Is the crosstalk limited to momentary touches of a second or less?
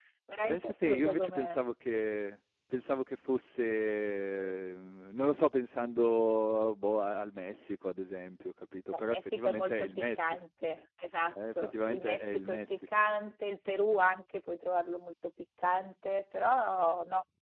No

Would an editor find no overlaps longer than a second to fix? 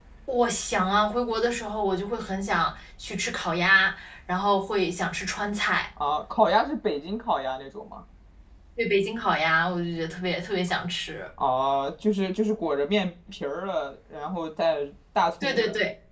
Yes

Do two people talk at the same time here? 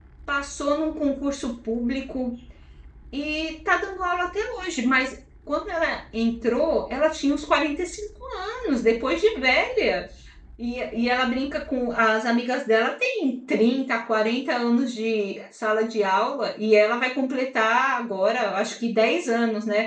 No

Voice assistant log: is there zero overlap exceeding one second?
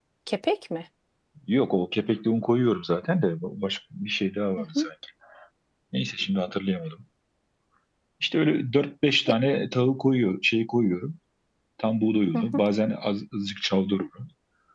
Yes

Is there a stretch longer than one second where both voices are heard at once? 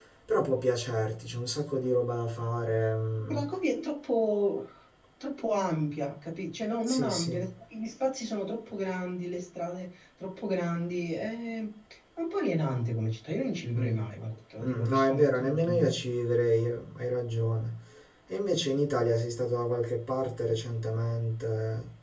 Yes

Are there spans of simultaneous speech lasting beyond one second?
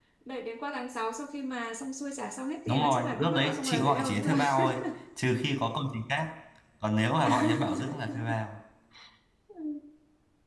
Yes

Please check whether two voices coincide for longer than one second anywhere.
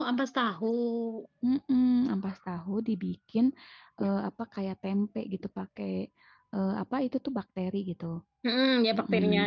No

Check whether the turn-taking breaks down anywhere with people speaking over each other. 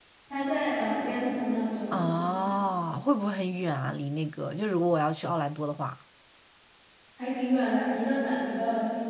No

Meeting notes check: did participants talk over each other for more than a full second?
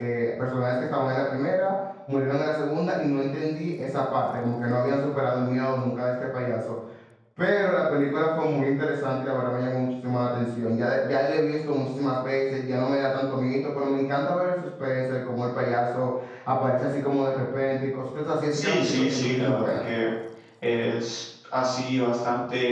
Yes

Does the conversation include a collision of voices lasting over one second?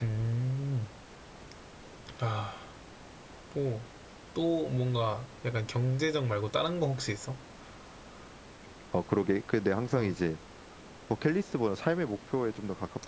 No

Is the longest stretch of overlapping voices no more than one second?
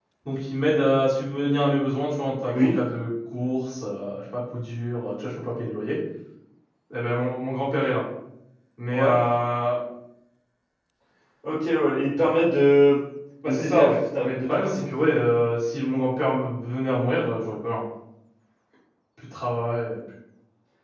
No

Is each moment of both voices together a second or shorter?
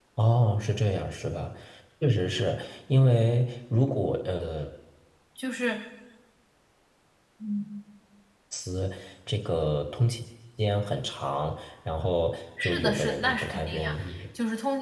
No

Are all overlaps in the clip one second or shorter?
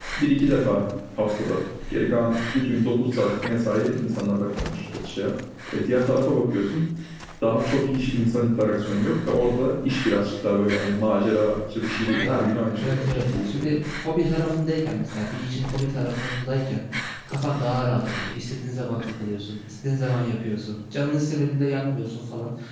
No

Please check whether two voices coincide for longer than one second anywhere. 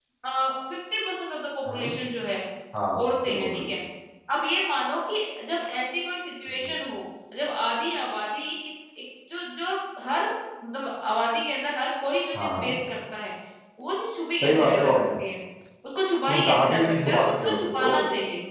Yes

